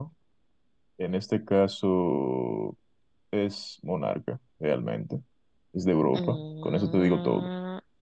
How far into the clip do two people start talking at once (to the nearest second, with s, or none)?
6 s